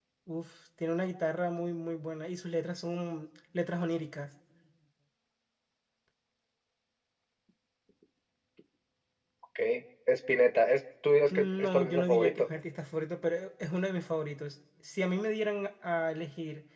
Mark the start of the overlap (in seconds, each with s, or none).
11.3 s